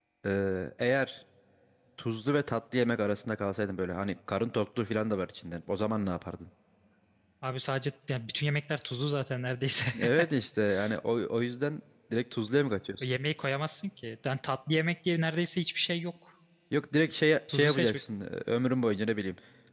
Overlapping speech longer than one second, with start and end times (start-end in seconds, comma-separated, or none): none